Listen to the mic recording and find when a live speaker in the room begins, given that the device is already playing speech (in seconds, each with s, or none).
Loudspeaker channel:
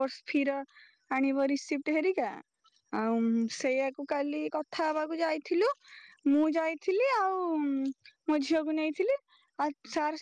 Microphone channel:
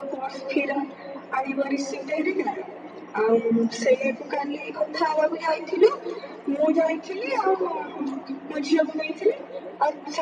none